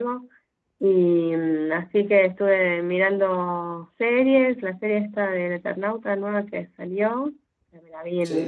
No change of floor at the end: Yes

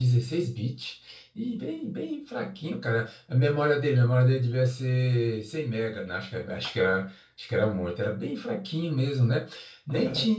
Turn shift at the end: No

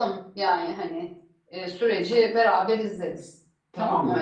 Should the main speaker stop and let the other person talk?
Yes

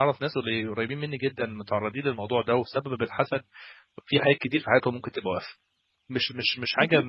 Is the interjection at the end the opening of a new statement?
Yes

